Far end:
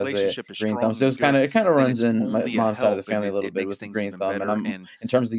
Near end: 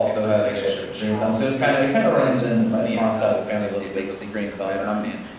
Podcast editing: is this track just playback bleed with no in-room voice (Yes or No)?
Yes